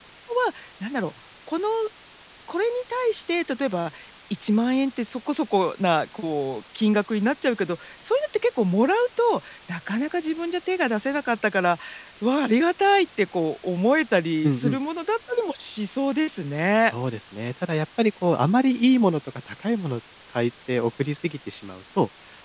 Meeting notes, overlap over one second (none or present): none